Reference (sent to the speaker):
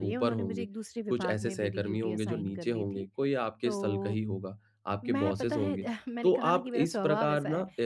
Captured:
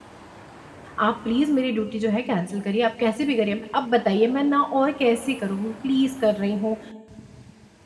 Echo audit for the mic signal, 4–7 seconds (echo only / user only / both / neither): user only